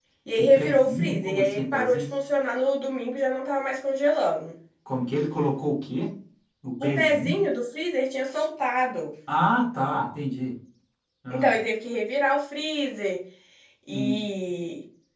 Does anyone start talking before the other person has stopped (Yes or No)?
Yes